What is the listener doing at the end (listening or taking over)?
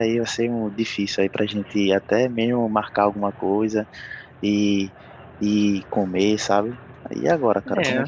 taking over